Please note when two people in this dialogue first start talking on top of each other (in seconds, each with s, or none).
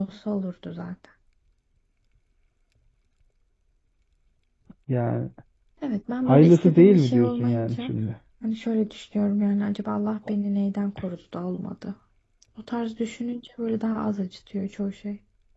6.3 s